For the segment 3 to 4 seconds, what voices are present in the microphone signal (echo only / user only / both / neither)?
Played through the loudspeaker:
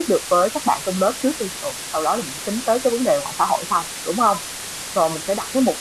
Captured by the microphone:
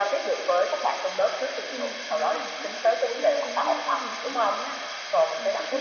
both